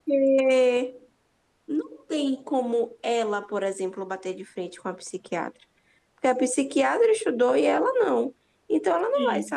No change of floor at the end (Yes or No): Yes